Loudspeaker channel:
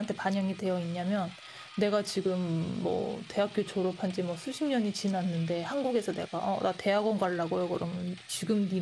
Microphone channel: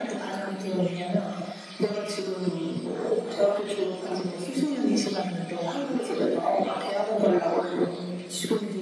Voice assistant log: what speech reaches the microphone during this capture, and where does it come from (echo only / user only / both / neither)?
echo only